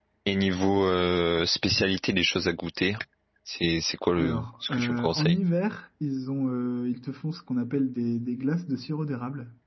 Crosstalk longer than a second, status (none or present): present